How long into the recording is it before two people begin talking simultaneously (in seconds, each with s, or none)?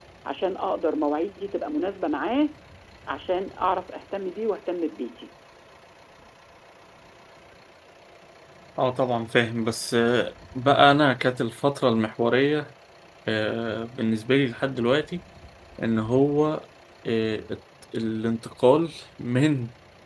none